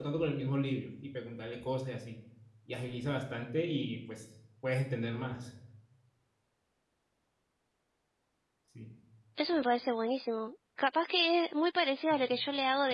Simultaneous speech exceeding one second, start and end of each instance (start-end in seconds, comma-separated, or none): none